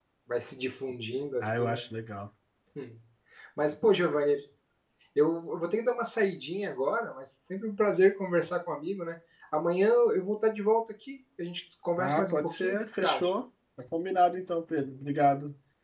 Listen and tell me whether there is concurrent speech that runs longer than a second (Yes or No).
Yes